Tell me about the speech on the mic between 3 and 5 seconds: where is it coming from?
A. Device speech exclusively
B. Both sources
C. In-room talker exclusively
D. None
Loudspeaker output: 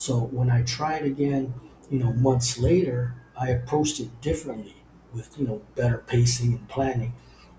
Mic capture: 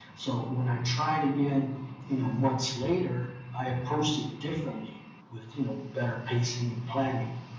A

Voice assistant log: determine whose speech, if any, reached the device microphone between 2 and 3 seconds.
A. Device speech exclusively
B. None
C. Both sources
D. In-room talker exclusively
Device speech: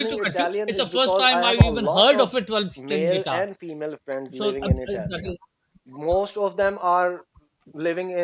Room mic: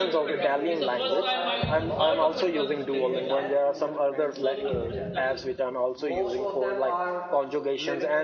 C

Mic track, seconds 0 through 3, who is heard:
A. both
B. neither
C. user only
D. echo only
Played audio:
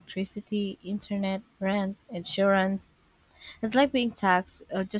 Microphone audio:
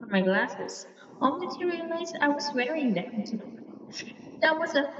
C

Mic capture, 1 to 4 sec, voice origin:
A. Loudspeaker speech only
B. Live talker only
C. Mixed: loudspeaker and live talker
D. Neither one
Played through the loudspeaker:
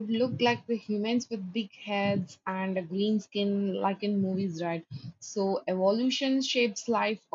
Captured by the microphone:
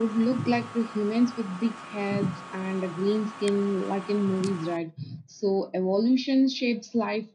A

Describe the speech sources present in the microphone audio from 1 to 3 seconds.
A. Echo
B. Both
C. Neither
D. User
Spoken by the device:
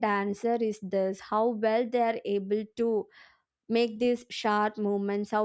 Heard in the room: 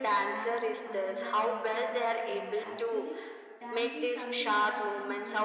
B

